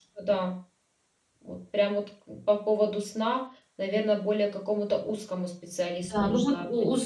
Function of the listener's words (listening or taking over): taking over